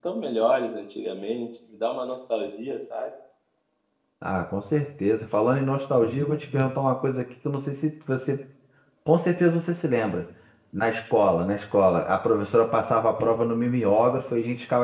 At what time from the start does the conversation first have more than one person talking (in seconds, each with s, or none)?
none